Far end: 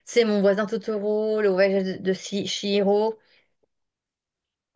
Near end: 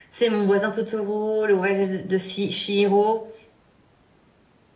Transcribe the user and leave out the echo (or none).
none